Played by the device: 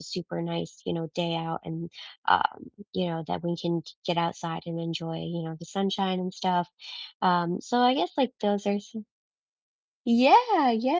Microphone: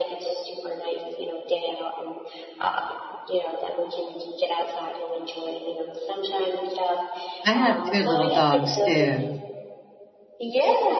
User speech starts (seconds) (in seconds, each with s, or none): 7.5 s